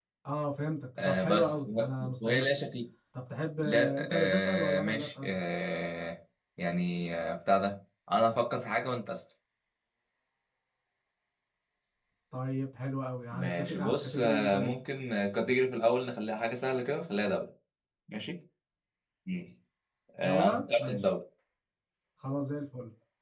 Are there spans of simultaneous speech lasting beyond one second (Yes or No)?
Yes